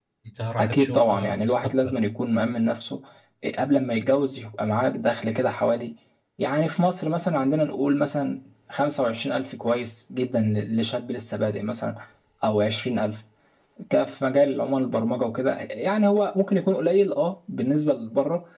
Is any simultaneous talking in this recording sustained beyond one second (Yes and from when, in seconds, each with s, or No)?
Yes, from 0.6 s